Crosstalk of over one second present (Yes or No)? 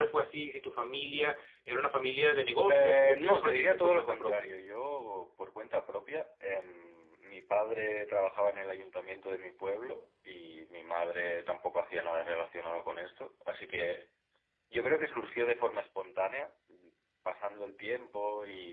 Yes